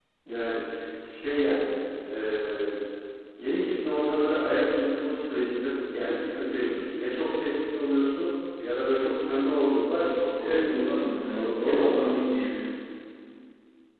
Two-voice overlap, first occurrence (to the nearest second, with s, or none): 10 s